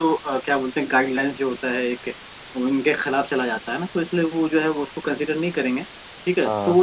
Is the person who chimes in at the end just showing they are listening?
Yes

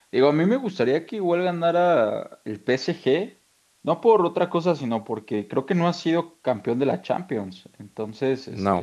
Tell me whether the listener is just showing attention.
Yes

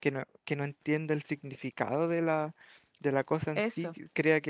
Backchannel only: Yes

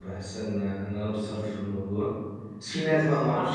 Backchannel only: Yes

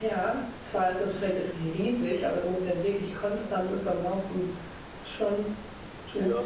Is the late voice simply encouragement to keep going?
No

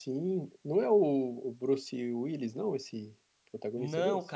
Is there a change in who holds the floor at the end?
Yes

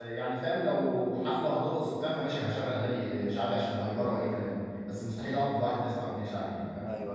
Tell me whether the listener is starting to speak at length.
Yes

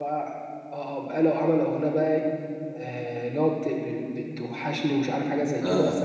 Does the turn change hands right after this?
No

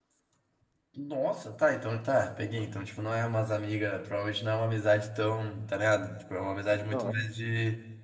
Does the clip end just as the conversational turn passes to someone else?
No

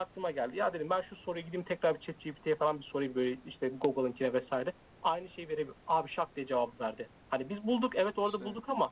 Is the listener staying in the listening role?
Yes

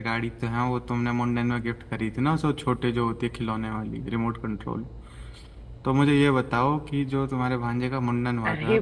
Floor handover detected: Yes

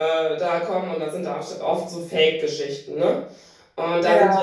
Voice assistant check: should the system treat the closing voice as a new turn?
No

